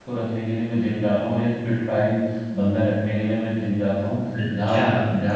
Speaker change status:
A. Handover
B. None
A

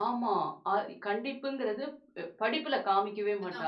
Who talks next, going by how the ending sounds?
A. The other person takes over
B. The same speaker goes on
A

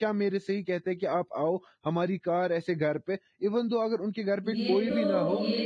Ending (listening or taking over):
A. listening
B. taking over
B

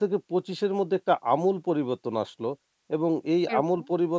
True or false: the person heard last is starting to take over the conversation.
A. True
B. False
B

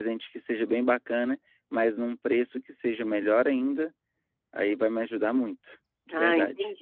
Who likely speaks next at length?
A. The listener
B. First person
A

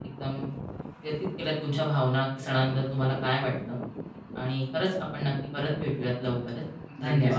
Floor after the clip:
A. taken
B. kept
A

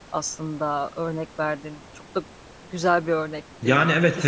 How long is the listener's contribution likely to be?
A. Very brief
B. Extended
B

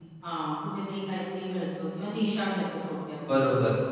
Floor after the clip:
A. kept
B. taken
B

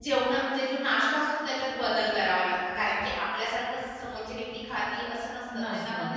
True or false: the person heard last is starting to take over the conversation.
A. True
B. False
B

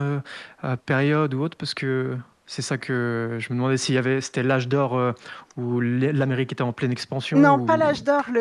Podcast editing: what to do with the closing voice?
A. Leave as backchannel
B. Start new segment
B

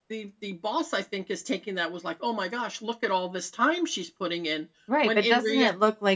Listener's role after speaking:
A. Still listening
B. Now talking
B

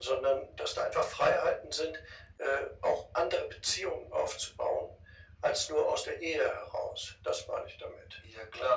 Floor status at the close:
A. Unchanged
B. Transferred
B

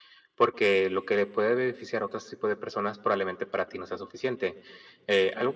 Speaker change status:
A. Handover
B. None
B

